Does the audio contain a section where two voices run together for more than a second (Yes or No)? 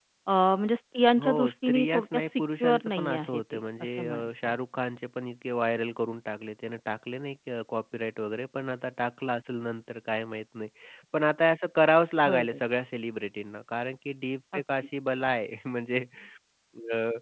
Yes